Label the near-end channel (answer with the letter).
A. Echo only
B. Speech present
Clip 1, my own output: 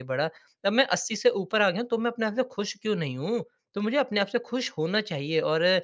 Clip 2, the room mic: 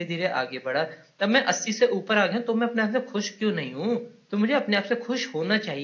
A